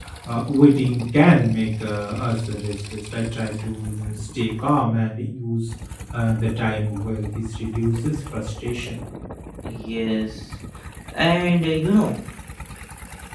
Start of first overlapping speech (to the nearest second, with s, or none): none